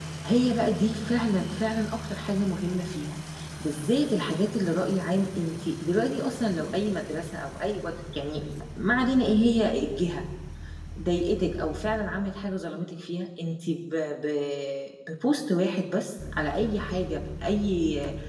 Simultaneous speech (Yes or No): No